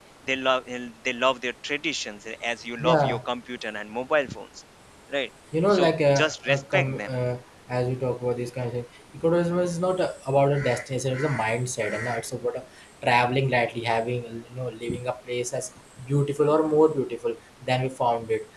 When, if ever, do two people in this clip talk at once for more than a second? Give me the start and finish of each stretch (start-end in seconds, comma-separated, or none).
5.7-7.1